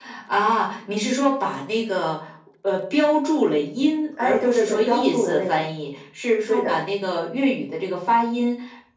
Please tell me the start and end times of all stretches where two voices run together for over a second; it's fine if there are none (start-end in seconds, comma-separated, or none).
4.2-5.7